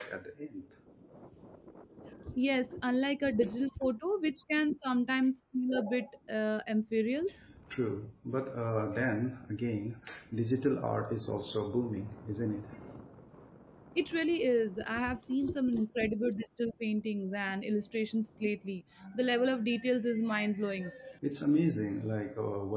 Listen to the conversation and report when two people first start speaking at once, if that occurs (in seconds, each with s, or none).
none